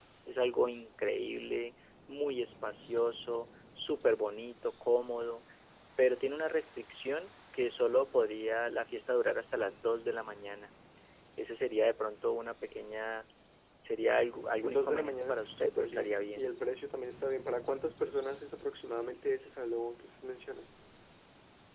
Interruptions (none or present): present